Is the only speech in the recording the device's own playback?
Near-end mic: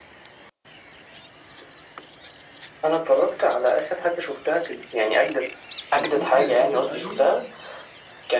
No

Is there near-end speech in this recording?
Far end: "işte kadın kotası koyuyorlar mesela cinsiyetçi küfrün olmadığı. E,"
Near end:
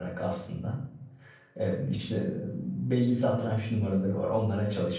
Yes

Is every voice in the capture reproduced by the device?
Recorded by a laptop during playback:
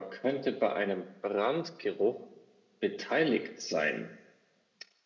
Yes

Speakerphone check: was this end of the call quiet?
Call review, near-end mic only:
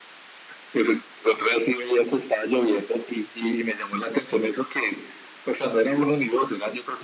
Yes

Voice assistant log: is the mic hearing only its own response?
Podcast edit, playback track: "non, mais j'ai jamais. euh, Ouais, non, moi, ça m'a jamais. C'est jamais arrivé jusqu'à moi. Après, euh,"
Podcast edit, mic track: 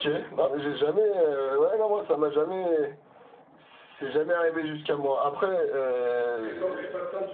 No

